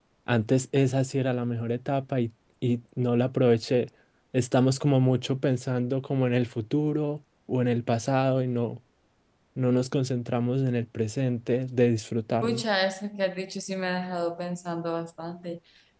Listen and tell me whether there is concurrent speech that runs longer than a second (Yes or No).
No